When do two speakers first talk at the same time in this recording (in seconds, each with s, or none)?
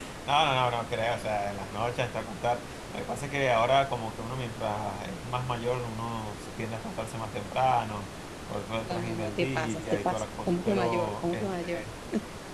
8.8 s